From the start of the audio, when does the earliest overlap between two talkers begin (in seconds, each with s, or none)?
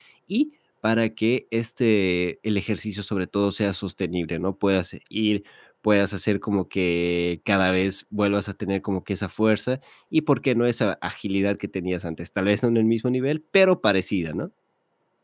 none